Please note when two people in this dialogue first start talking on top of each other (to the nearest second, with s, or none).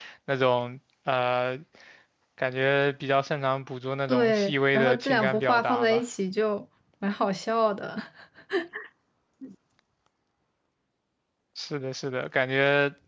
4 s